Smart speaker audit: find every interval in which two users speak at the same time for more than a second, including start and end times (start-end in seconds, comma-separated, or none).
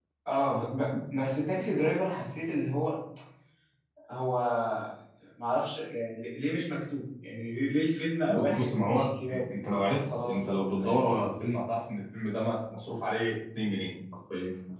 8.3-9.5, 10.0-11.3